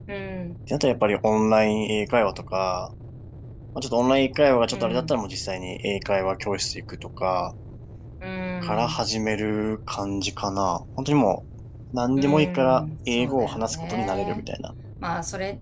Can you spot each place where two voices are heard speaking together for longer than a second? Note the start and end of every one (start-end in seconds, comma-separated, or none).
12.2-14.4